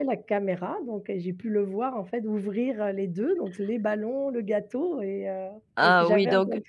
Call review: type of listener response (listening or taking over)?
taking over